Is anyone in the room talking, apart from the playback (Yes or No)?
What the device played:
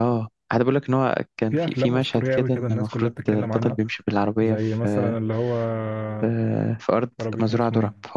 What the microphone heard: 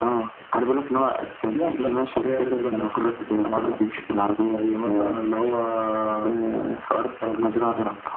No